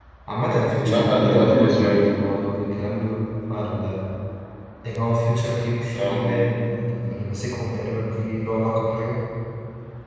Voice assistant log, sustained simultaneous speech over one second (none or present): present